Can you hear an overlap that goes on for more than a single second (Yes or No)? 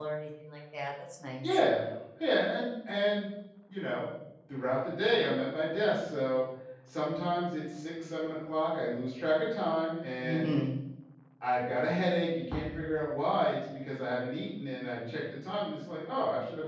No